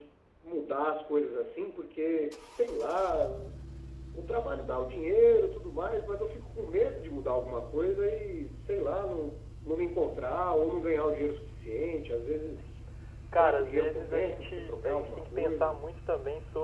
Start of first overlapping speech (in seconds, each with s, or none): 13.3 s